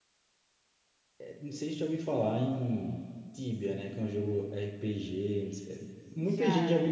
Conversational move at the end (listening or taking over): listening